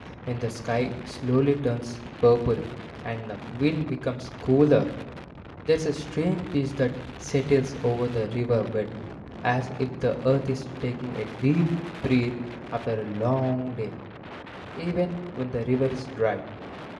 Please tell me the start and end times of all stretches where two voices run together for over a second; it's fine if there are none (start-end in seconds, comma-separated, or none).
none